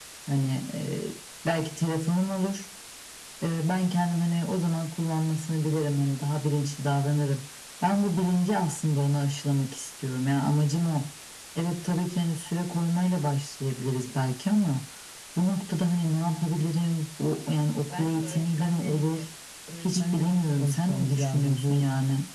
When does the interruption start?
17.9 s

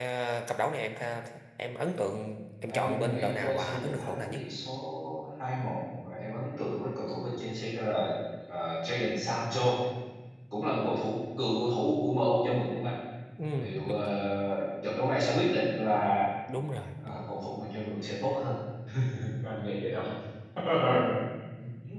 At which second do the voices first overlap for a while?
2.7 s

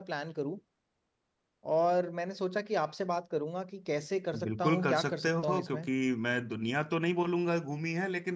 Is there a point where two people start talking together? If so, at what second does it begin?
4.3 s

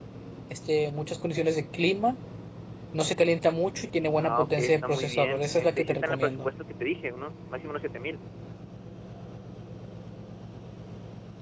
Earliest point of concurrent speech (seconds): 4.2 s

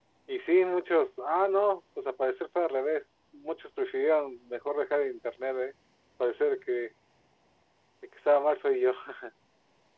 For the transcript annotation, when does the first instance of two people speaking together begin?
none

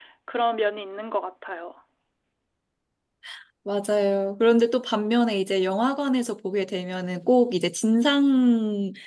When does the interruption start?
none

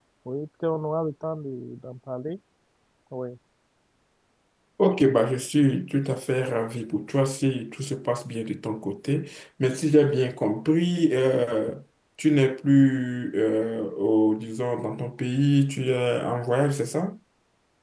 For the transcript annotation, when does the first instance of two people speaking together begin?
none

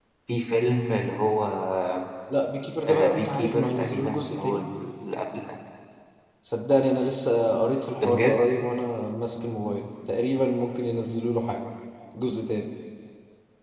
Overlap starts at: 3.1 s

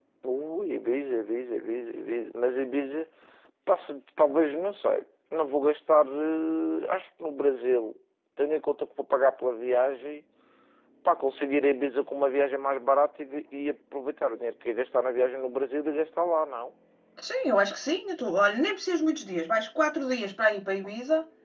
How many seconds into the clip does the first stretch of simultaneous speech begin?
none

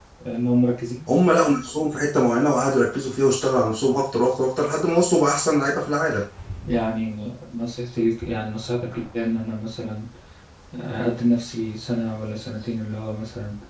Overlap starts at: none

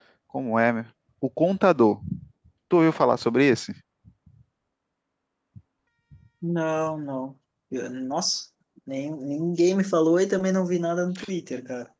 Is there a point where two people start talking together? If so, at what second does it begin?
none

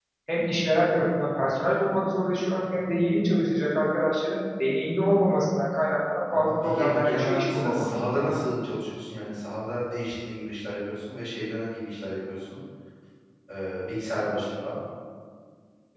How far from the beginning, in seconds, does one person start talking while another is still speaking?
6.3 s

